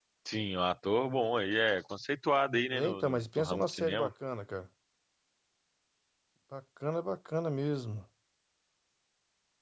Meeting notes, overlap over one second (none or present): present